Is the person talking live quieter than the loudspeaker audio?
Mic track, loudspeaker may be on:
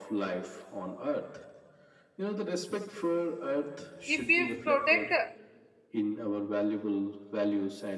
No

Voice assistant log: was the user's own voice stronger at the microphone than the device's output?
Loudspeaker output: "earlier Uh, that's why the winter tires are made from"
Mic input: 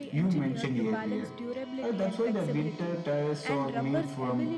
No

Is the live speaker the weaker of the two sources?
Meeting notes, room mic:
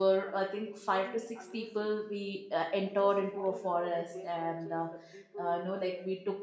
No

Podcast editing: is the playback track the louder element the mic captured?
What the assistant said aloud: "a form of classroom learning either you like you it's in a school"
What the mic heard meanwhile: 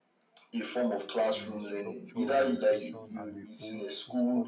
Yes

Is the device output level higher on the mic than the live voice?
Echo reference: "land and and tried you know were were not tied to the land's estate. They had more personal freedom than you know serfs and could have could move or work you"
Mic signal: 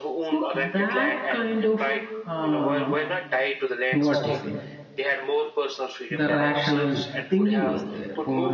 No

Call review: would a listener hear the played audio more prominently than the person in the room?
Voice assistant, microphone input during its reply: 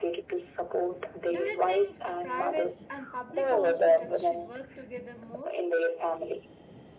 Yes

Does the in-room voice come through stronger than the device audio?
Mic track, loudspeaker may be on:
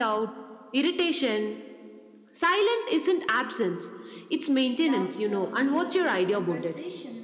No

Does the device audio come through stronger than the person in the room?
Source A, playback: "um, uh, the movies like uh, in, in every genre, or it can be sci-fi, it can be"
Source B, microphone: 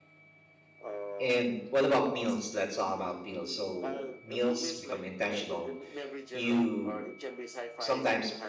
No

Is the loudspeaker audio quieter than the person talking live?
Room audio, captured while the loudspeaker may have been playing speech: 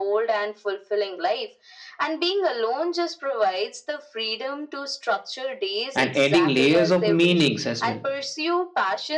Yes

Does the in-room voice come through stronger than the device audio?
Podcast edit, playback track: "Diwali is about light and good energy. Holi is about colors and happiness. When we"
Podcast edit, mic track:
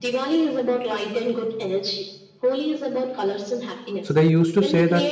Yes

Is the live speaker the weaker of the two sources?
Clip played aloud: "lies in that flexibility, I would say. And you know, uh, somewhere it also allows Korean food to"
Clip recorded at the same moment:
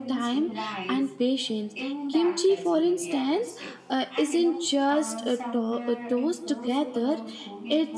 No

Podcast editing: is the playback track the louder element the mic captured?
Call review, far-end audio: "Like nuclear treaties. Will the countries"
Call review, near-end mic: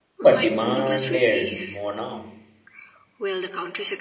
No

